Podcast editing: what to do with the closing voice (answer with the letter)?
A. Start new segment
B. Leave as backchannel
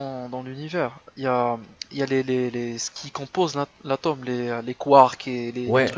A